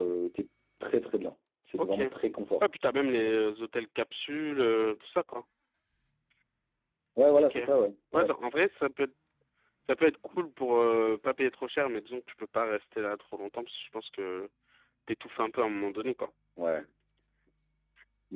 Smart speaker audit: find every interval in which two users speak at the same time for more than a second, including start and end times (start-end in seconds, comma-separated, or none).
none